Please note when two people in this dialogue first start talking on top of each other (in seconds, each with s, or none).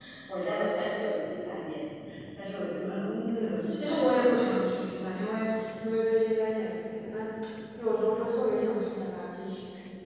2.8 s